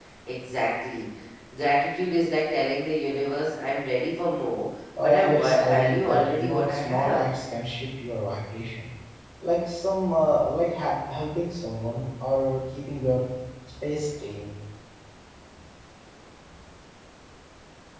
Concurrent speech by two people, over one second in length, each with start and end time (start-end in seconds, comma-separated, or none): 5.0-7.2